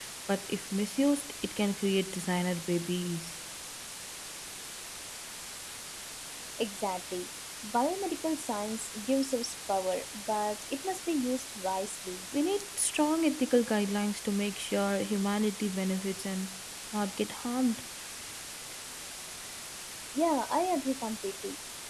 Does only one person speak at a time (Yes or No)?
Yes